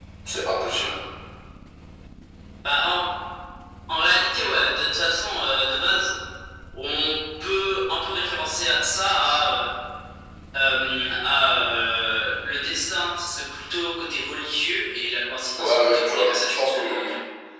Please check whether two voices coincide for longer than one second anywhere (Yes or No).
Yes